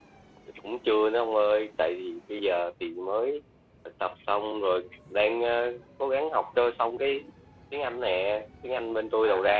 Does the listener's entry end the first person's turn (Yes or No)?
No